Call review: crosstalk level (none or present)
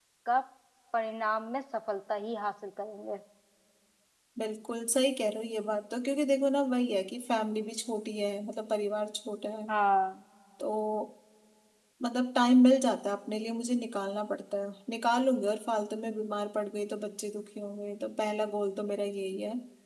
none